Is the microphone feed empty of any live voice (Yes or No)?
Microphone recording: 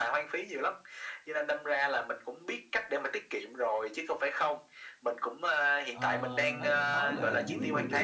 No